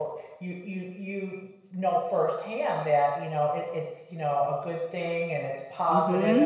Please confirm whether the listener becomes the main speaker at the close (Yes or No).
Yes